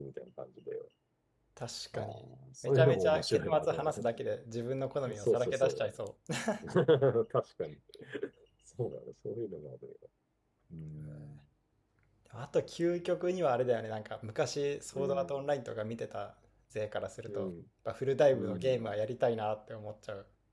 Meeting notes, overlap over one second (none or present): present